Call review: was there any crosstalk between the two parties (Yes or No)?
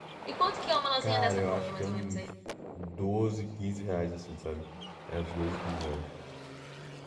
Yes